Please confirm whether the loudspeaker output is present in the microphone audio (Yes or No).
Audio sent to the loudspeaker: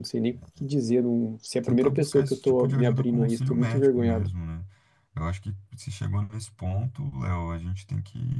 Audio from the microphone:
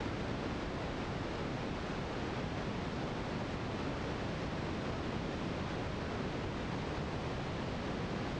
No